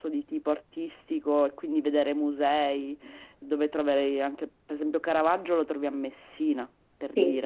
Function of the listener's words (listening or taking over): taking over